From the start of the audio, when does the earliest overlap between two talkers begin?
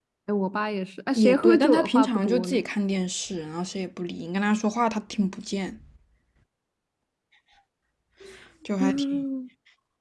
1.1 s

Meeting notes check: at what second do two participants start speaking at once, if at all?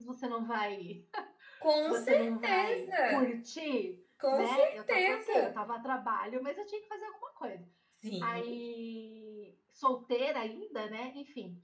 1.9 s

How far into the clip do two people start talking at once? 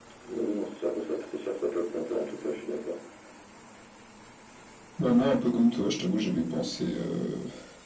none

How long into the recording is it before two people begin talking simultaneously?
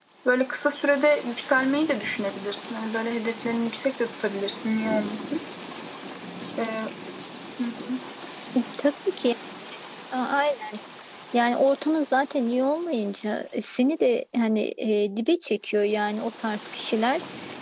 none

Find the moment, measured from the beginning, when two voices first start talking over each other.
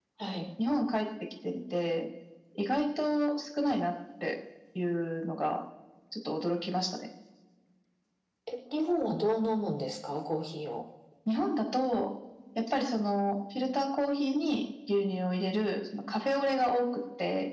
none

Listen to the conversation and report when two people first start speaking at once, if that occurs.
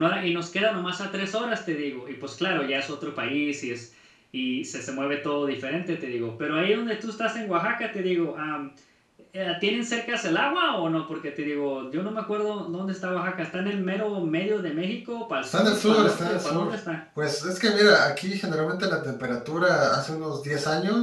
15.4 s

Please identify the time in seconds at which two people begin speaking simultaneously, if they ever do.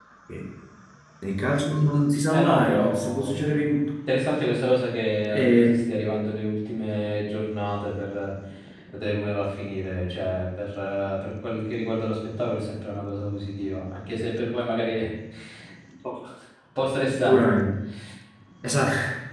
2.3 s

